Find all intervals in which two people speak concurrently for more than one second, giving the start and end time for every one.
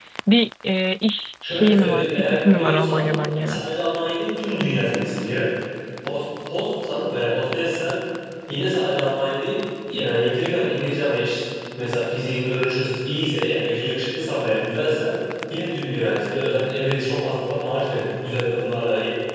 1.5-3.1

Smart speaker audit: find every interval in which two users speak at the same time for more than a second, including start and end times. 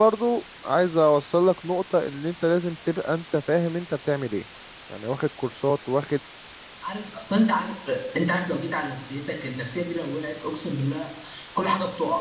none

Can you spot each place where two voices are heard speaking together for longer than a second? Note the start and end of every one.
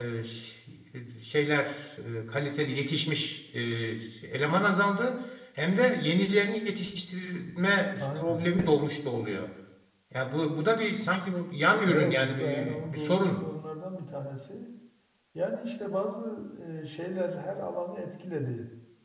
11.9-13.5

